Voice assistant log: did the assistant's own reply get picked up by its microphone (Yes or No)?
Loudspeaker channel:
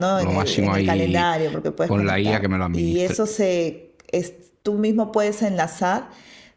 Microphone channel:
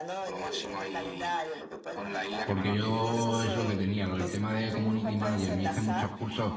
Yes